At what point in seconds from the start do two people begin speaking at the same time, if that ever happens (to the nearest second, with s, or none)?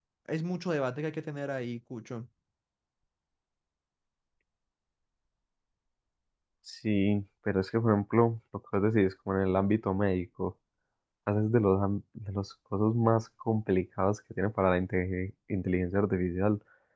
none